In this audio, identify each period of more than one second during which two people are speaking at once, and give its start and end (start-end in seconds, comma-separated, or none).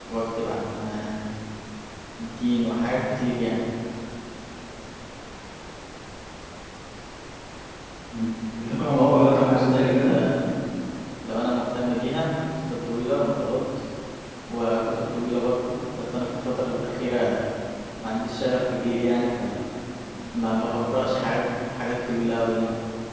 9.0-10.2